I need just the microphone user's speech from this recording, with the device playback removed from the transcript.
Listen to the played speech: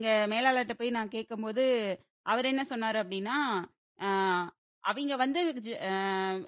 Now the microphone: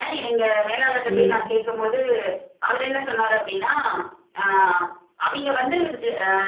ம்.

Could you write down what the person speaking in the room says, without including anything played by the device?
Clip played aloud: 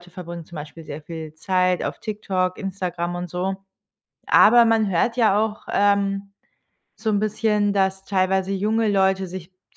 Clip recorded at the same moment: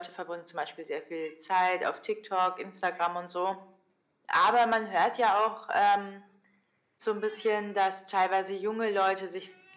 none

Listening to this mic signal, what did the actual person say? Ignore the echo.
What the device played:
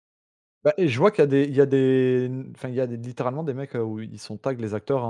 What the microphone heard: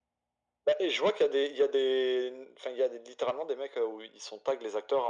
none

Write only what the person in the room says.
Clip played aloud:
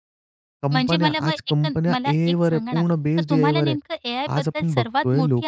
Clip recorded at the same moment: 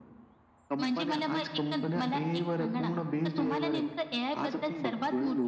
none

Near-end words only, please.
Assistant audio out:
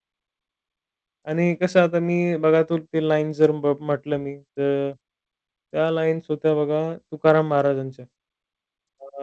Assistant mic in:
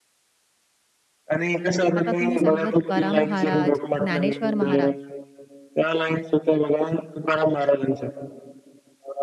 आता तुम्ही सांगितलं तुकाराम महाराज, ज्ञानेश्वर महाराज

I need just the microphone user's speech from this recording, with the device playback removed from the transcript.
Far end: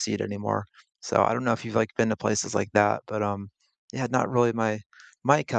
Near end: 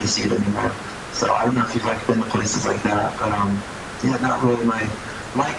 none

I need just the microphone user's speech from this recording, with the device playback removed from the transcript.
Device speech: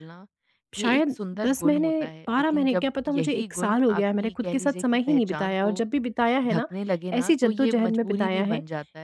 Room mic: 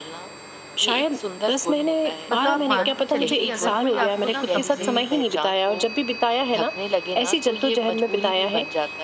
मतलब आप मान के चलिए कि अगर कोई आपको ना कपड़े

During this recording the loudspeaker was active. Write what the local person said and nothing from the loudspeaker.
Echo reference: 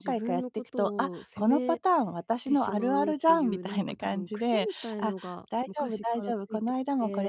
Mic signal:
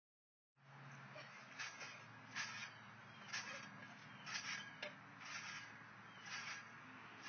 none

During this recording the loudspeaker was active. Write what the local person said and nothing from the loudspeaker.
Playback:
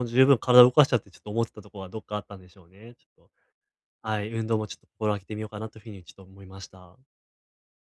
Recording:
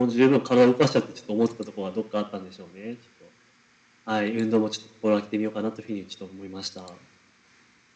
none

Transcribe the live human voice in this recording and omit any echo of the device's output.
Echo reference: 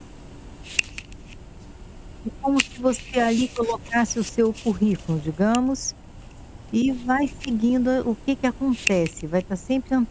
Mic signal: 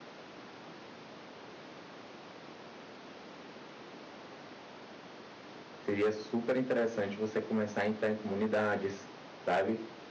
Seria super interessante você começar a entrar em comunidades, sabe?

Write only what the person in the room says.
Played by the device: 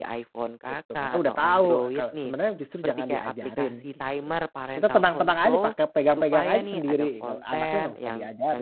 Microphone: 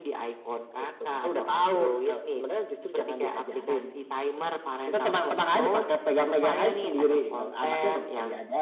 none

